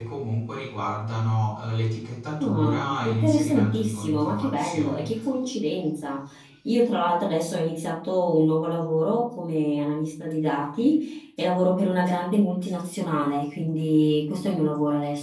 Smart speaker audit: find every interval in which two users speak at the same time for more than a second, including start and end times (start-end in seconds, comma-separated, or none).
2.4-5.1